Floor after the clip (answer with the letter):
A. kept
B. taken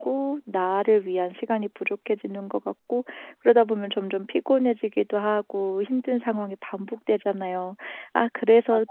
A